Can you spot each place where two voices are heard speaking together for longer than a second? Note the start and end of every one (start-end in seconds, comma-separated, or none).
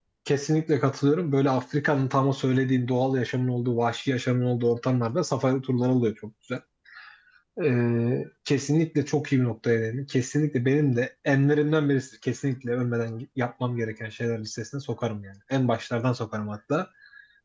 none